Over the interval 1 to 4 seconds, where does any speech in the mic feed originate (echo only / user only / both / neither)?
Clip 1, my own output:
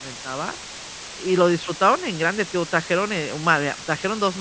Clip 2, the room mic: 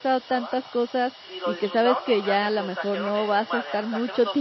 both